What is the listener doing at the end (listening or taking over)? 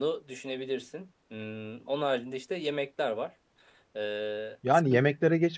taking over